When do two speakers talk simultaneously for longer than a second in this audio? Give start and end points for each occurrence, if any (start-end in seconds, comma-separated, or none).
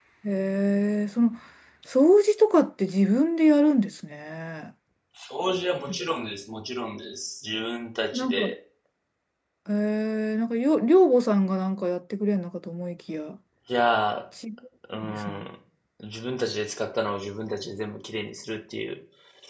none